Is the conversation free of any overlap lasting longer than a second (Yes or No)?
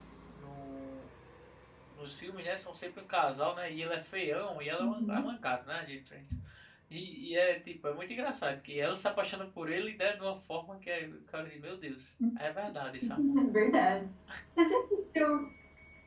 Yes